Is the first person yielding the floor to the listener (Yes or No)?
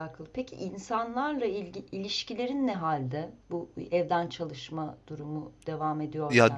Yes